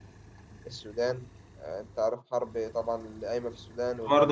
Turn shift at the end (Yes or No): Yes